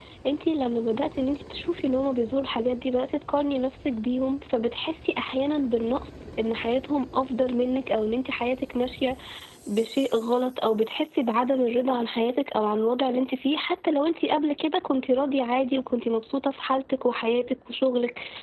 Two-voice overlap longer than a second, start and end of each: none

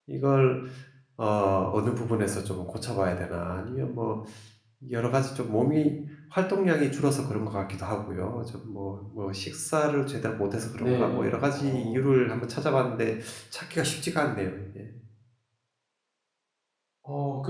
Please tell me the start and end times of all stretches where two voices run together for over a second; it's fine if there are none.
10.8-12.0

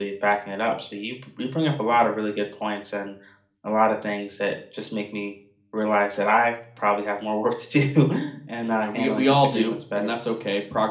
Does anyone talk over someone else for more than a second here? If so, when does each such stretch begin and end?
8.6-10.2

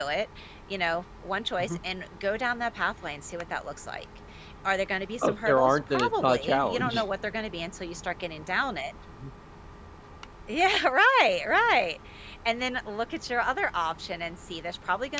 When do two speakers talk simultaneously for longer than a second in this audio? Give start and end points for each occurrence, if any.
5.2-7.1

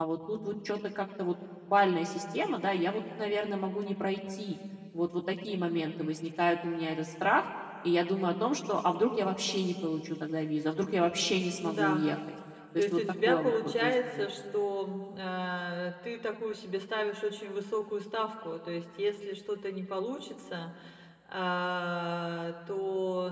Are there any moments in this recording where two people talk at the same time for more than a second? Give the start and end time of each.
12.8-14.2

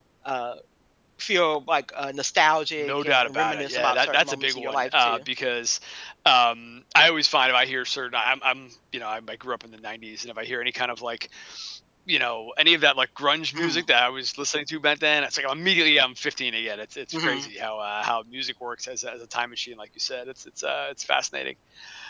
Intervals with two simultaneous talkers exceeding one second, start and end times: 2.8-5.2

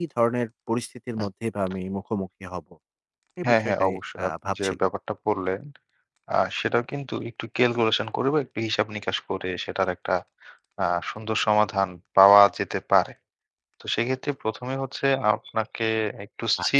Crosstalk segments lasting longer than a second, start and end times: 3.4-4.9

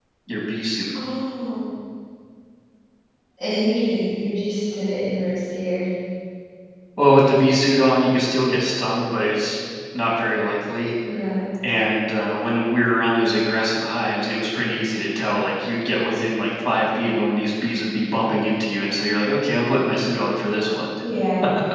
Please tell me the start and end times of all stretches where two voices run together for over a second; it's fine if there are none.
none

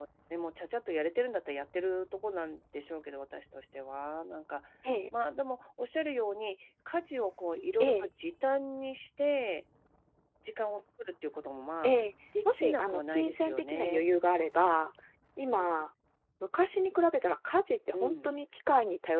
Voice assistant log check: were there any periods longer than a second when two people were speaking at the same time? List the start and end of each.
12.5-14.0

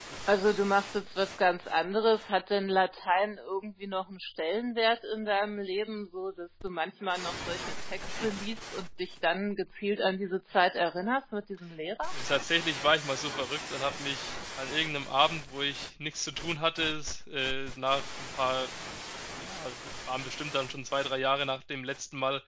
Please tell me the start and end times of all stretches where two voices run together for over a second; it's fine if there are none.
none

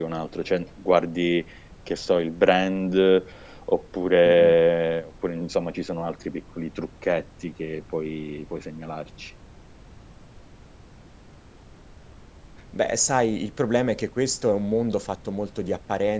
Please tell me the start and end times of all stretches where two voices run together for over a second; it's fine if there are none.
none

